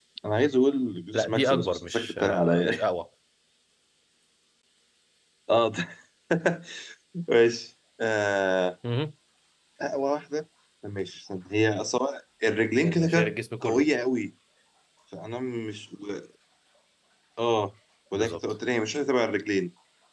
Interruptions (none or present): present